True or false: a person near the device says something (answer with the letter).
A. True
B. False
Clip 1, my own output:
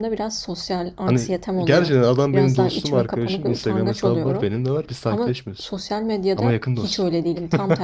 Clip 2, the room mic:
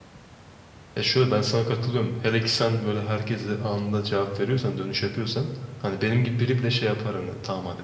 A